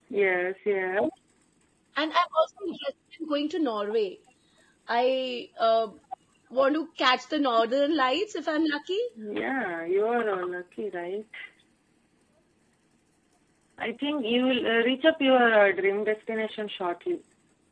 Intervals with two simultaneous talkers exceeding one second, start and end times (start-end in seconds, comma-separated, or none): none